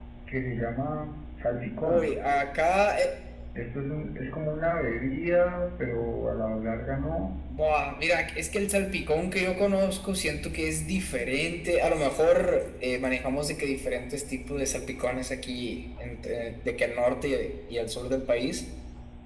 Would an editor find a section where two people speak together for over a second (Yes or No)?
No